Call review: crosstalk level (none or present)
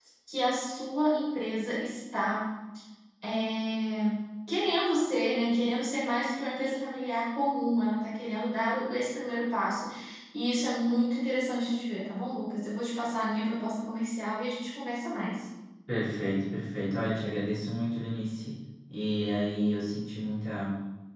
none